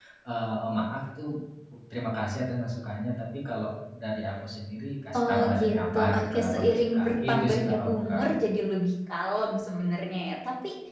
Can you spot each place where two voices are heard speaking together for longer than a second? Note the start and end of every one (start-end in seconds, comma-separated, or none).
5.1-8.2